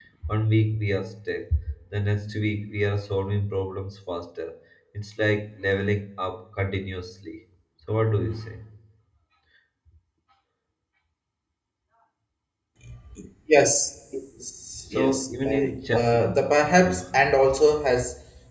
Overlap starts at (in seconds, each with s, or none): 14.9 s